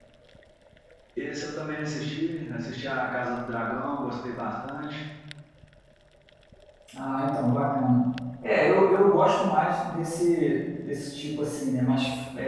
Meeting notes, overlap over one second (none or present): none